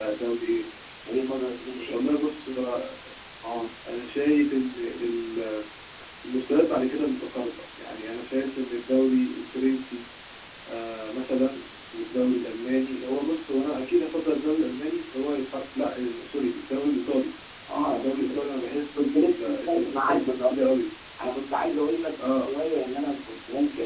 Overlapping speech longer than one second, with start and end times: 19.0-20.6

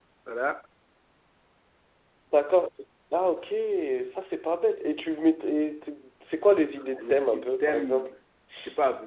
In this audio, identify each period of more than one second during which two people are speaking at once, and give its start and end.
6.9-8.1

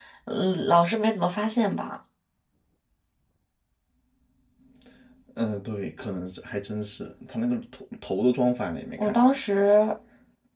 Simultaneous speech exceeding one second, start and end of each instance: none

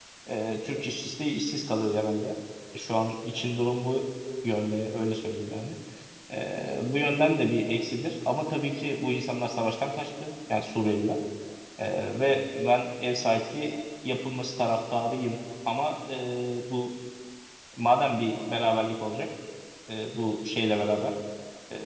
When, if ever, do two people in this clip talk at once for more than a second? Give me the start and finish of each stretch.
none

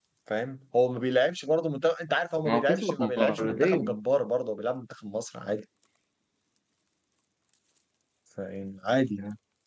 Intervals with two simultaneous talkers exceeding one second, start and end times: 2.5-4.0

